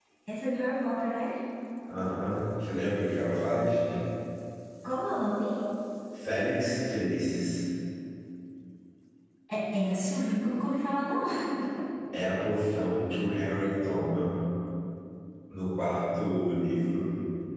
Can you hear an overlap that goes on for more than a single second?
No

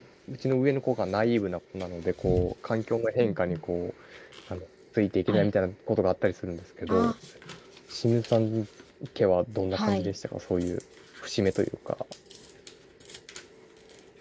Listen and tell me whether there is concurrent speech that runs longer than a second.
No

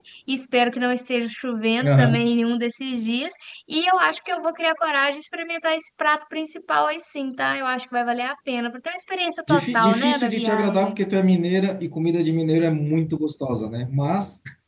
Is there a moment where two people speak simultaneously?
Yes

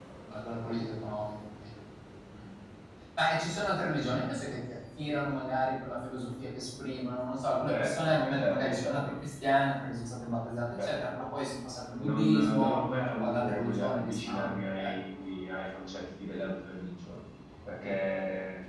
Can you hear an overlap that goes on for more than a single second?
Yes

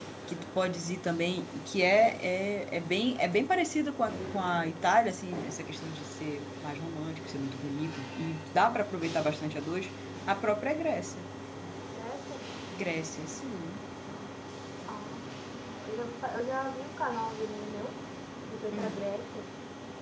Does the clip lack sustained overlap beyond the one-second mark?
Yes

